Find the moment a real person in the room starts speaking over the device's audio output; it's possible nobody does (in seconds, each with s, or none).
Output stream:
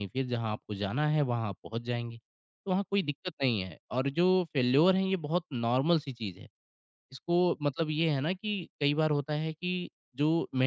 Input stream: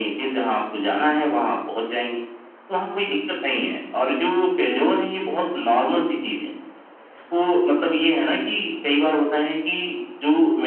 none